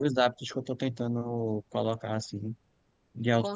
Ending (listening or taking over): taking over